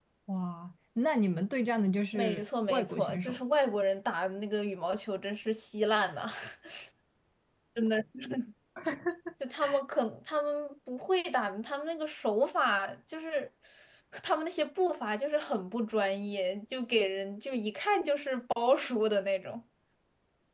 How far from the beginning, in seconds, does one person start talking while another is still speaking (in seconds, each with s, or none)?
2.1 s